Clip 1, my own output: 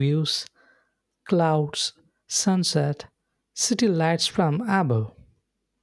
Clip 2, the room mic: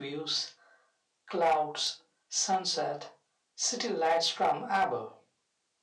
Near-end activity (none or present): none